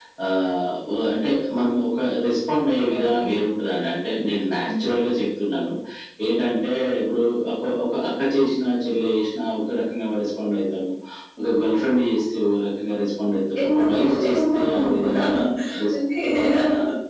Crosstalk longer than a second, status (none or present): present